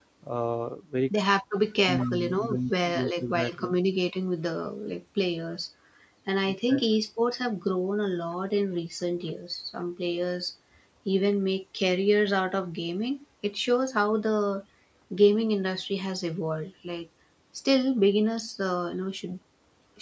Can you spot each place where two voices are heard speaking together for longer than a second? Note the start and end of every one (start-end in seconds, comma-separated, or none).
1.9-3.8